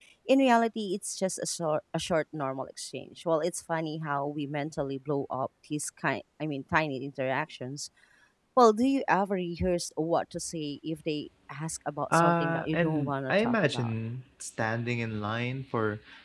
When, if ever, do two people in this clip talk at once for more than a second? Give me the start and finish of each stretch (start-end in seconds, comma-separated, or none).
12.1-13.9